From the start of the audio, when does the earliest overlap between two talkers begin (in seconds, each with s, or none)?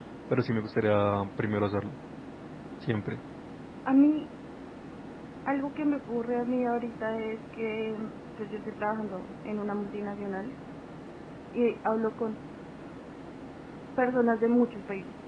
none